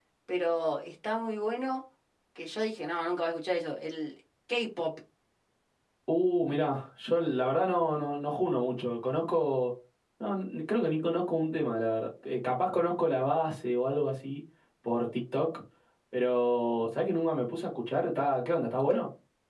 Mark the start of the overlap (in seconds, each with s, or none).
none